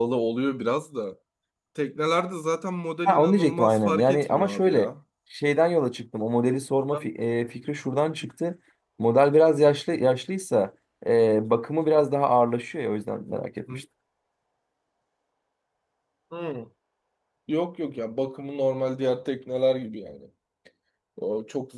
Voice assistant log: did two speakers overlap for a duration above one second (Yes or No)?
Yes